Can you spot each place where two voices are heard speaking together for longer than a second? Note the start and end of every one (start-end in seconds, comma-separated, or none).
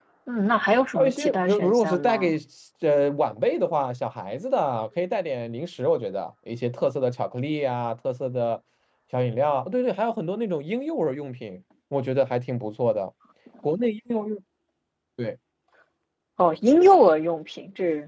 0.9-2.3